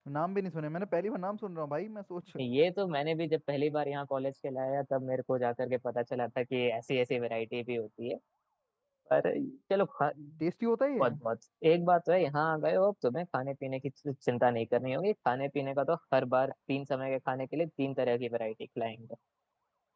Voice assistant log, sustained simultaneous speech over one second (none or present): none